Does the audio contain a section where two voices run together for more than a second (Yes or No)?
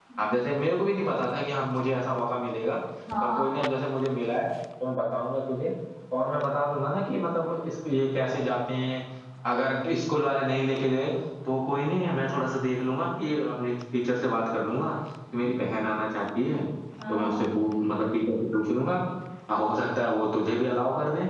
No